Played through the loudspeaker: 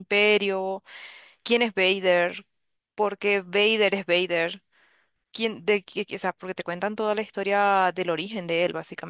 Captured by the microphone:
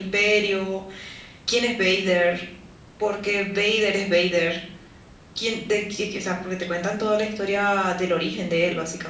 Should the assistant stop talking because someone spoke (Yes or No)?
No